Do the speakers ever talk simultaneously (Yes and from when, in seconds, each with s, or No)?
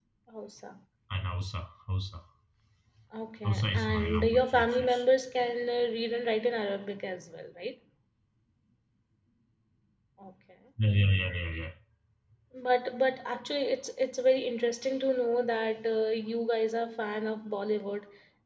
Yes, from 3.4 s